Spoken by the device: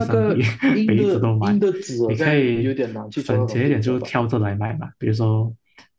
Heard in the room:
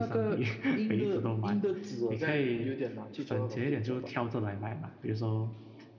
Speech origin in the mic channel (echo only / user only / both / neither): echo only